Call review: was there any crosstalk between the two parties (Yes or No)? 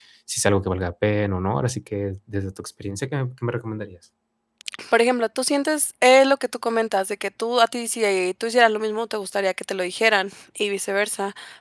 No